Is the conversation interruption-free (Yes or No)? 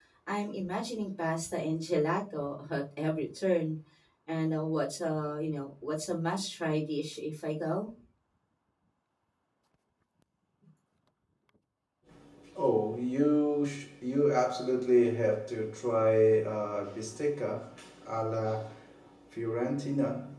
Yes